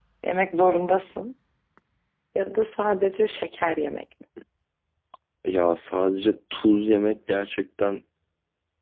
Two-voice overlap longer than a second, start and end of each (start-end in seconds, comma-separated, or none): none